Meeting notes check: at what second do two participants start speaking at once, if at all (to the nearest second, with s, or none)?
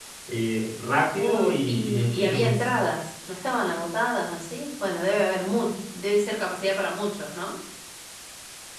1 s